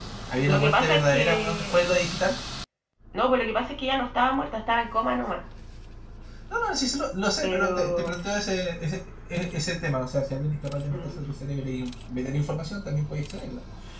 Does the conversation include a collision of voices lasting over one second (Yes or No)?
Yes